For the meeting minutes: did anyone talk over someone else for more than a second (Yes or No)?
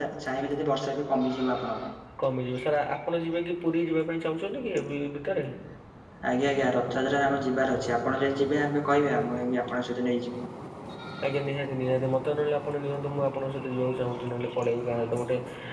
No